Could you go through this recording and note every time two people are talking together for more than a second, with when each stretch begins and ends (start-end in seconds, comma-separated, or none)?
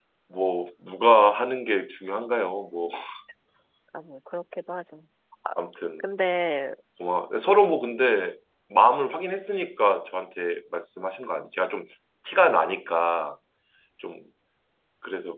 none